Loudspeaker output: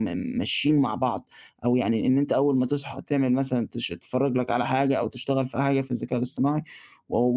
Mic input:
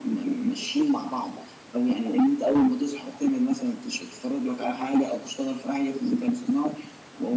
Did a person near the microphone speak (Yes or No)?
No